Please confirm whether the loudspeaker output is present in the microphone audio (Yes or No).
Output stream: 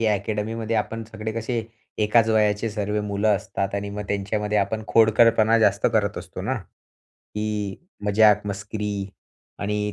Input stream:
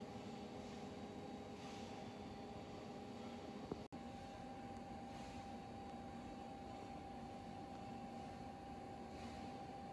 No